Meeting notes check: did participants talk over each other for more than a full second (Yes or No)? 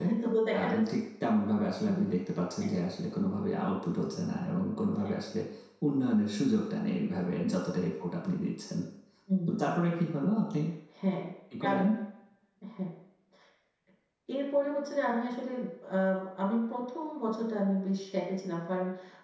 No